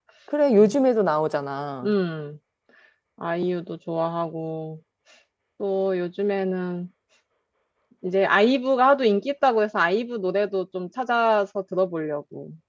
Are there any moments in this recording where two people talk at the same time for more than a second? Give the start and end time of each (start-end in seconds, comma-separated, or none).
none